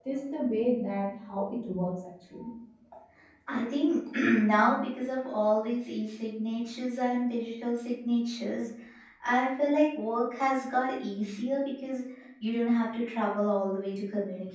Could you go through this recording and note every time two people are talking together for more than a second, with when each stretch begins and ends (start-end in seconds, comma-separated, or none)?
none